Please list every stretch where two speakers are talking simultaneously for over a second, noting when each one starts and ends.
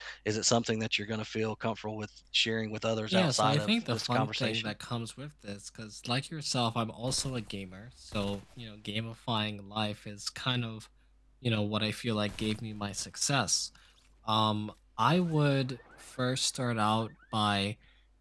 3.1-4.7

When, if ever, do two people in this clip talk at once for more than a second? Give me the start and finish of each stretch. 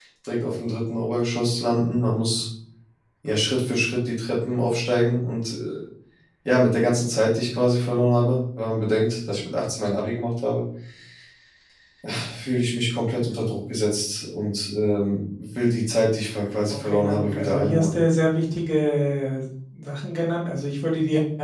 16.7-17.9

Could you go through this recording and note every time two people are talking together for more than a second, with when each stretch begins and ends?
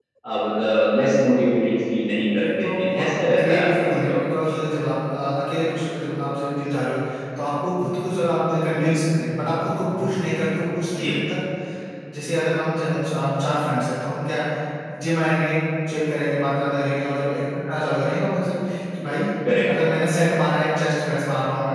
2.4-4.5

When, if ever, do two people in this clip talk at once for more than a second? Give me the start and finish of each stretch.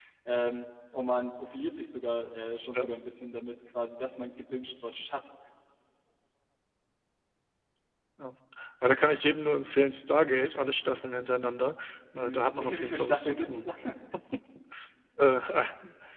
12.2-13.7

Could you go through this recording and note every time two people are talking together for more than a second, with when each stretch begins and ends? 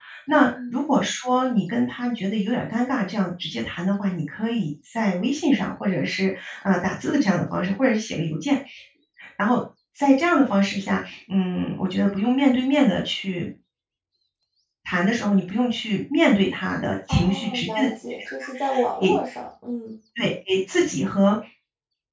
17.1-19.1

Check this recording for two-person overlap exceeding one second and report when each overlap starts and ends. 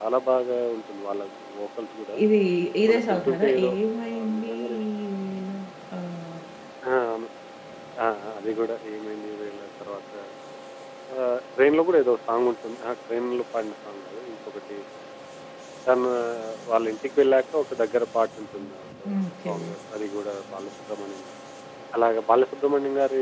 2.9-4.5

